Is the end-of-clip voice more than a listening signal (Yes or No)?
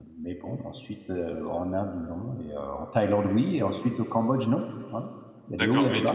Yes